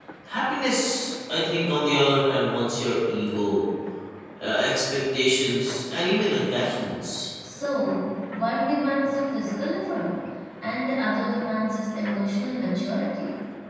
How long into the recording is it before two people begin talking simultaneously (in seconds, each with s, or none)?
none